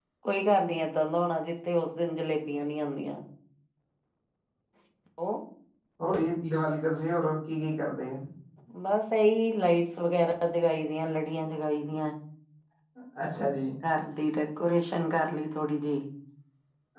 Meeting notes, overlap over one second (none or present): none